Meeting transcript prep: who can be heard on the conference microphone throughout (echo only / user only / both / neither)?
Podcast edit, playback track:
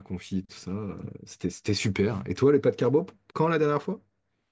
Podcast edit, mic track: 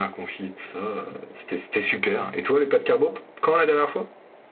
echo only